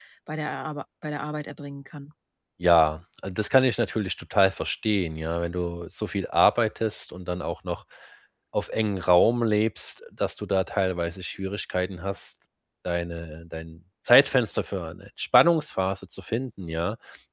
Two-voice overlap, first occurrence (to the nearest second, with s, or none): none